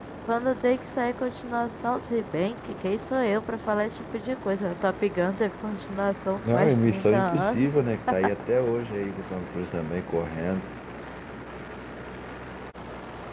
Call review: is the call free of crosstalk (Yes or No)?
No